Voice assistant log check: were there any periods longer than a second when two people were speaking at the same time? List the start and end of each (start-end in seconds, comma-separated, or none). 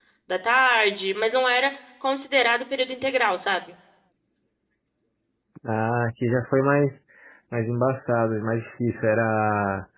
none